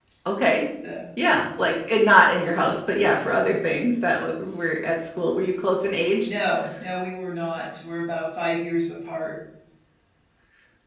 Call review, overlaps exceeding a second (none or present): none